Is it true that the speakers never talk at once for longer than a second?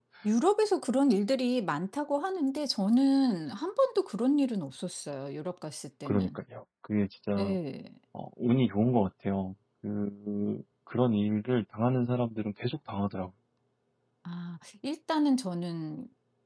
Yes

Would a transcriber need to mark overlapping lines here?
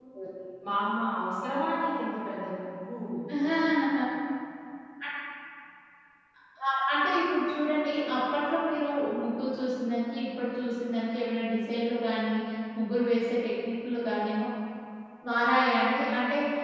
No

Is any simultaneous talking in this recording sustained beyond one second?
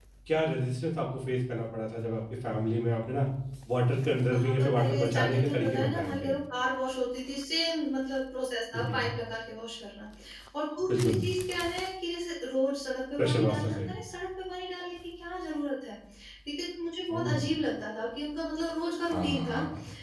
Yes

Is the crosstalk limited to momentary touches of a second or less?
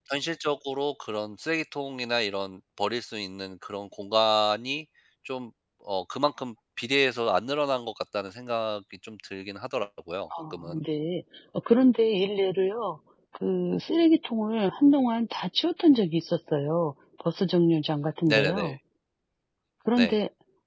Yes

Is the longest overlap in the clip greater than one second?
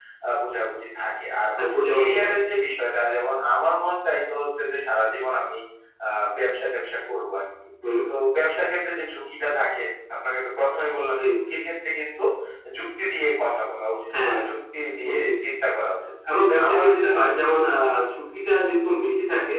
No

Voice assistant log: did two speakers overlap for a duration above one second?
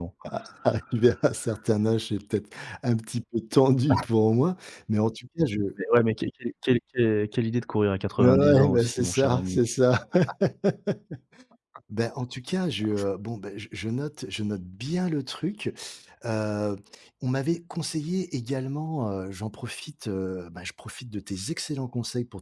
Yes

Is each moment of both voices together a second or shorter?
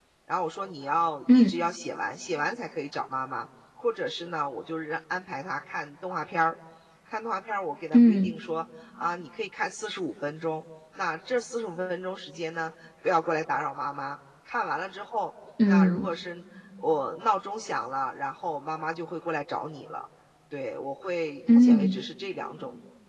Yes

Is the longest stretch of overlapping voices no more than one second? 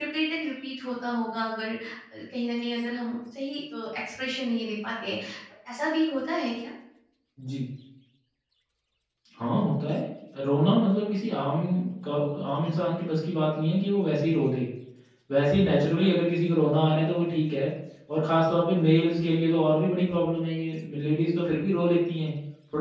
Yes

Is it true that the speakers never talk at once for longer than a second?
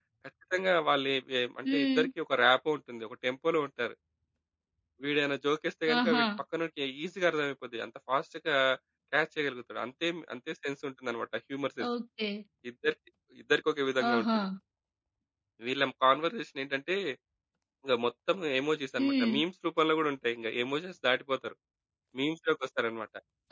Yes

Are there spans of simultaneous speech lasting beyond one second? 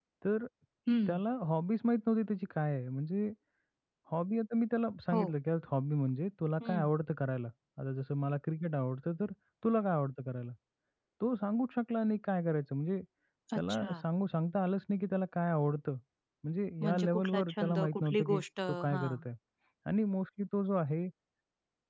Yes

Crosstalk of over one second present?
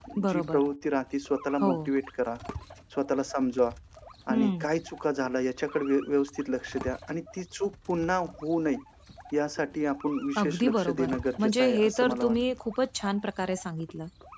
Yes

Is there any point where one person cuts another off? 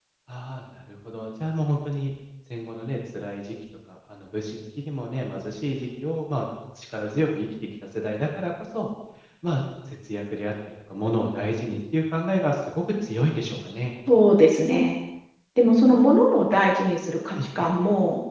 No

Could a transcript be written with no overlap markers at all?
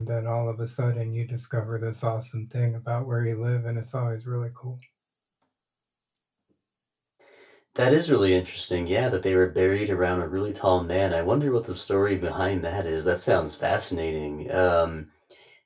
Yes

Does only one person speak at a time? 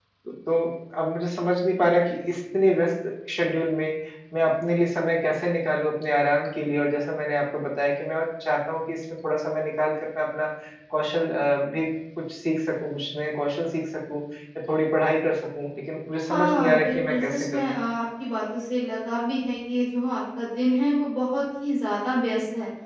No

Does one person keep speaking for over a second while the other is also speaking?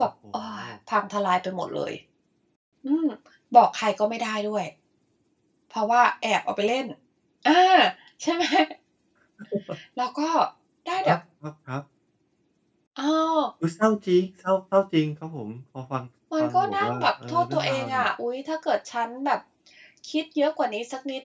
Yes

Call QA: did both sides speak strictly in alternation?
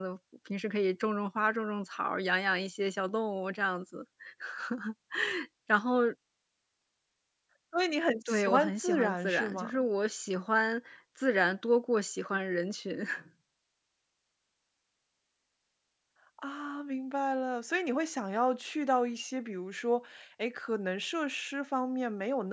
No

